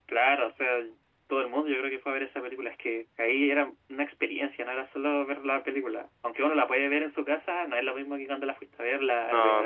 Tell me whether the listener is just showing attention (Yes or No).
No